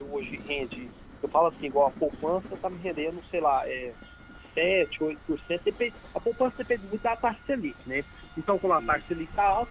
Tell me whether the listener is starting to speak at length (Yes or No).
No